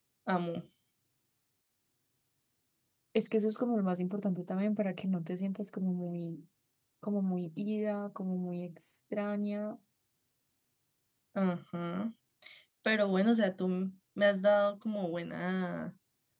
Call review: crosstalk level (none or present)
none